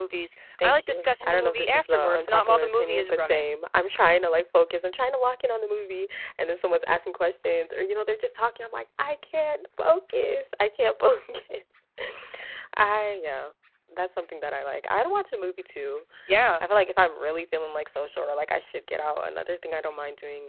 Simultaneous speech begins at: 0.6 s

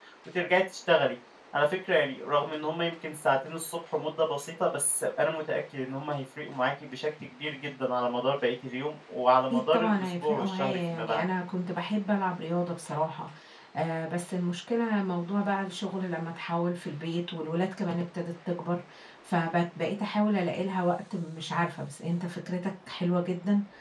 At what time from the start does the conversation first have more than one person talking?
9.5 s

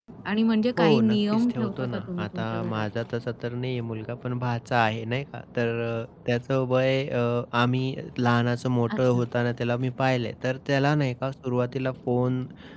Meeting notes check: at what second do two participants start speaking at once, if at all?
0.8 s

